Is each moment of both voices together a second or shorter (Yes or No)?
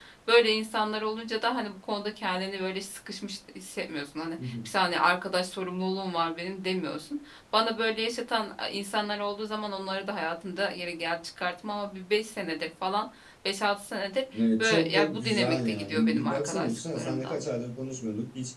No